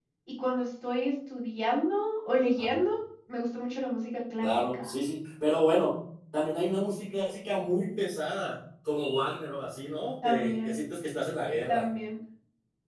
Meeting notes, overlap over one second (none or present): none